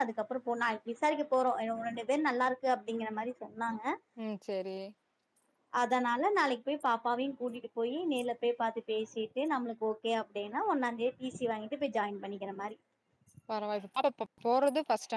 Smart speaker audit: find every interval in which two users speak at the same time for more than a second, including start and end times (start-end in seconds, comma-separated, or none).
none